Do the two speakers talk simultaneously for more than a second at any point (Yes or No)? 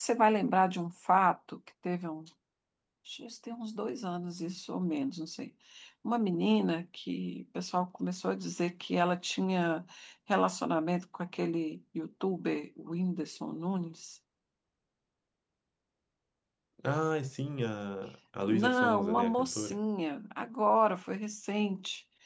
Yes